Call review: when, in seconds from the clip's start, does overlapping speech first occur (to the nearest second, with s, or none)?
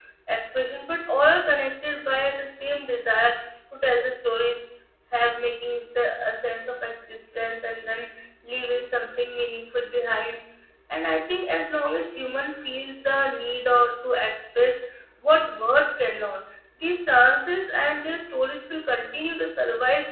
none